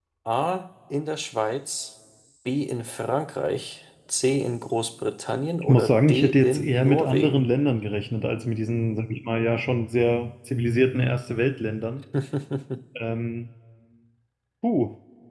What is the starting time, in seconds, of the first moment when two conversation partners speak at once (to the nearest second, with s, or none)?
6 s